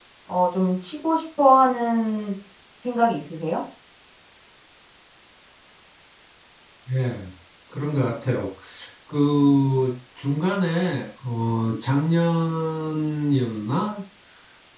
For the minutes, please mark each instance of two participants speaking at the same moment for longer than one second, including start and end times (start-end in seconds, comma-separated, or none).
none